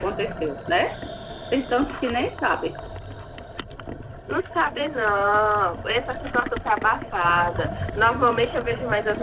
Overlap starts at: none

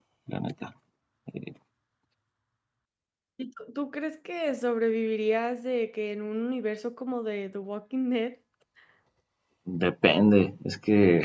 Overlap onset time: none

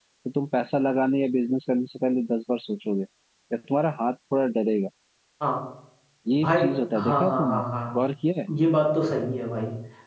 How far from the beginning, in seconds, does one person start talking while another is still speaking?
6.4 s

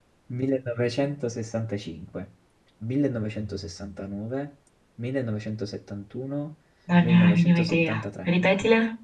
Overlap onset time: 7.0 s

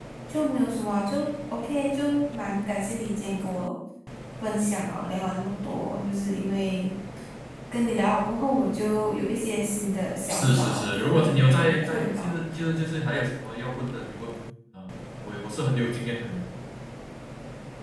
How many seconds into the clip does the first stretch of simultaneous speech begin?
10.3 s

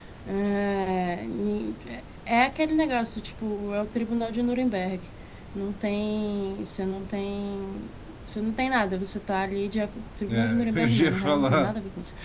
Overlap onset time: 10.3 s

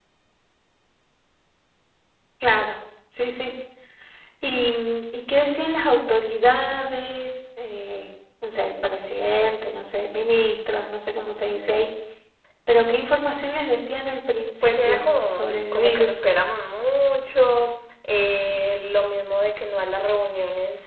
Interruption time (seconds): 14.6 s

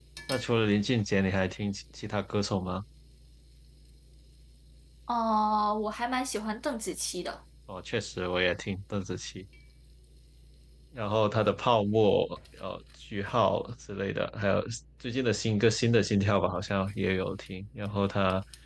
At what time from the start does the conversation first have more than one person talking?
none

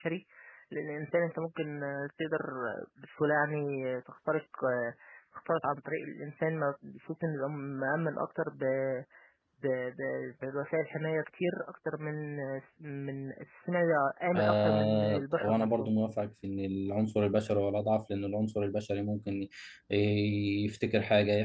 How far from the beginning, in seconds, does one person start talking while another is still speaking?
14.3 s

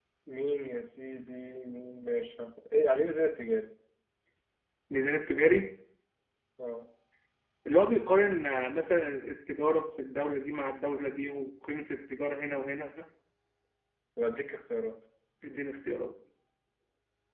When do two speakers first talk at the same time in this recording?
none

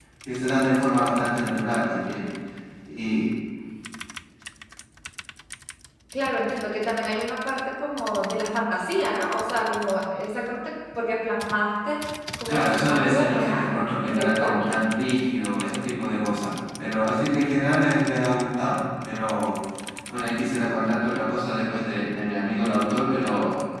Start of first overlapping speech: 12.5 s

